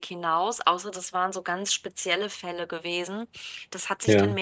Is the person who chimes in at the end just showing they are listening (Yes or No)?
Yes